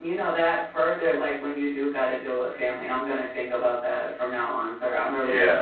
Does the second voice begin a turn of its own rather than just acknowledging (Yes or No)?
Yes